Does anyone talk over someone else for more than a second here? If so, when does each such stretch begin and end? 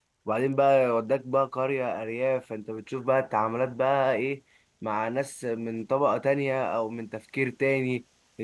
none

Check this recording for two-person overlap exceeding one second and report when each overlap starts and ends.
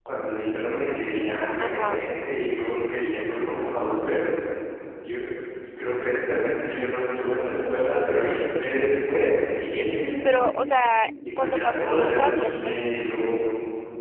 11.4-12.8

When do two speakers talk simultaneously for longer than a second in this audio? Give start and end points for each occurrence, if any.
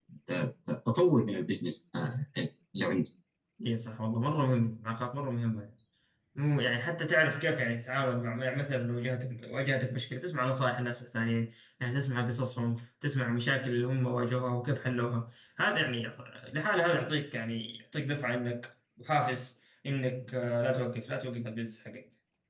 none

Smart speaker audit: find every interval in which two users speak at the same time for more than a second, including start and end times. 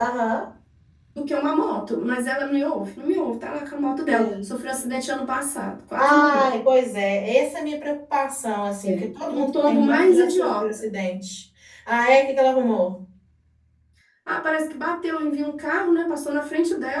8.8-10.9

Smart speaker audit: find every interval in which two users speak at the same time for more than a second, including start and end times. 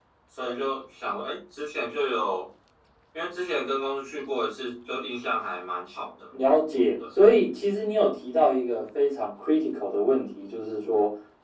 none

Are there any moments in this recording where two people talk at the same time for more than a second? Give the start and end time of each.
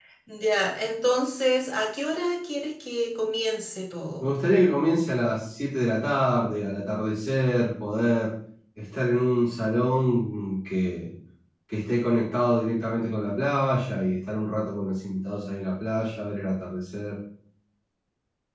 none

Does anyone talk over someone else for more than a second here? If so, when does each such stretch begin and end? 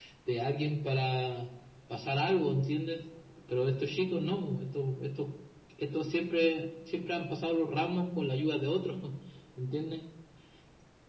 none

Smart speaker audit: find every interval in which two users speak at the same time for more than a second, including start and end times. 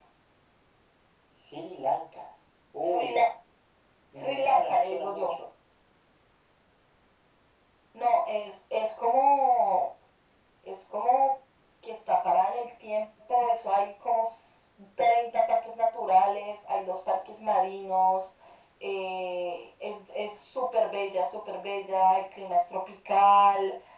4.1-5.4

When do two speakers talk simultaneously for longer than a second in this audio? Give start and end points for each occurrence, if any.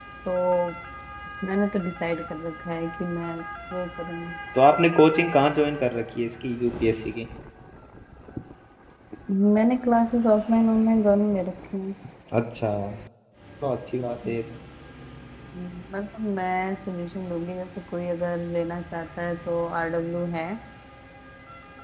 none

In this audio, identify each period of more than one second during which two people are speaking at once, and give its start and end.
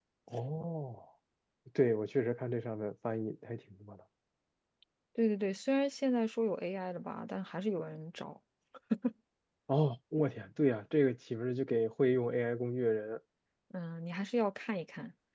none

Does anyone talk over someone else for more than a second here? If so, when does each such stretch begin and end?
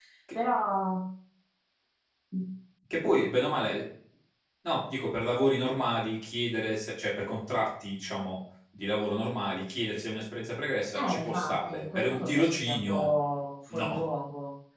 11.0-13.1

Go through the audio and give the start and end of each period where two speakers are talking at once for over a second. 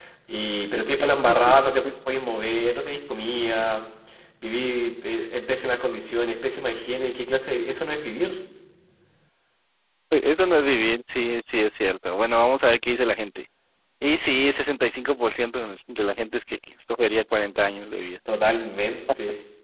none

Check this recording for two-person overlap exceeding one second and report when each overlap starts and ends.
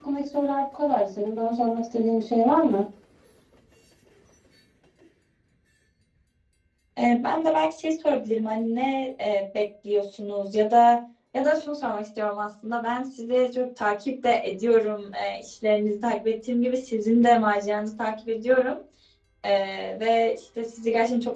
none

